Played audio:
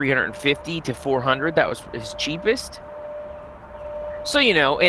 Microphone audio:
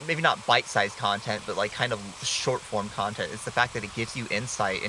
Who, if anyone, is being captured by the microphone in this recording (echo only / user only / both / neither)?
user only